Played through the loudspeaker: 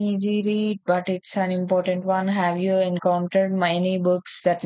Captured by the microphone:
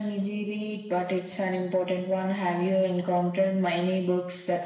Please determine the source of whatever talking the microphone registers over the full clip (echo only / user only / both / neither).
echo only